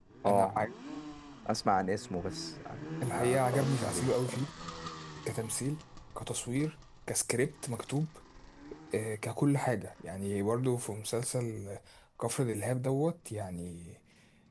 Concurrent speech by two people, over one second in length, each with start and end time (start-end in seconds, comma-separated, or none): 3.1-4.4